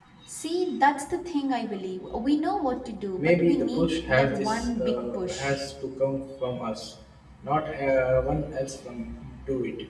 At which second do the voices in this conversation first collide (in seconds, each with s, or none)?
3.2 s